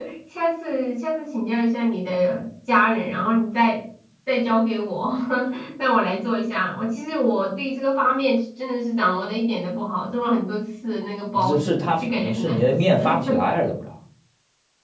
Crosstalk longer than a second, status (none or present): present